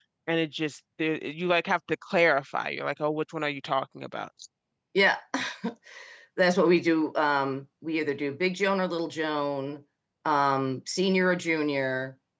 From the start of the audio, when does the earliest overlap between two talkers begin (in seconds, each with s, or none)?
none